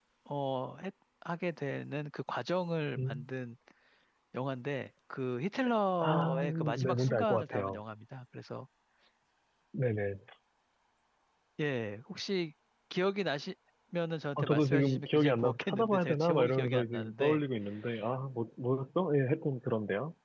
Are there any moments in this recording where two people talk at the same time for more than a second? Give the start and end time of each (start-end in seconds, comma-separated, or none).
6.0-7.8, 14.4-17.4